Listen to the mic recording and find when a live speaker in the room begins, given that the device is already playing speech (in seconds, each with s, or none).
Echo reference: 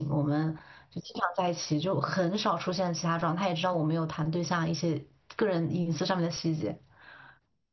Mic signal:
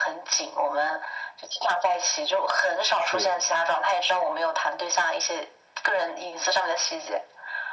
3.0 s